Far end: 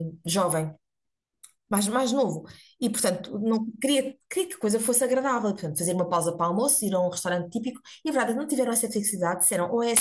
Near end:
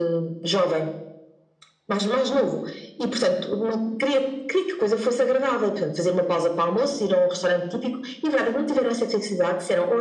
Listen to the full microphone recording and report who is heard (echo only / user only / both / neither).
echo only